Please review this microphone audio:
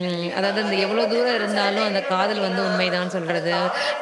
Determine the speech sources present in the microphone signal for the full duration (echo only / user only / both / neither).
both